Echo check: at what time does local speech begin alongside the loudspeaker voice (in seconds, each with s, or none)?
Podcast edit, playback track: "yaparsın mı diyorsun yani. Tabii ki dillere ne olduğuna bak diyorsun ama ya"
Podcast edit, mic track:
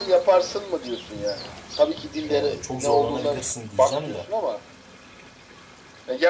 2.2 s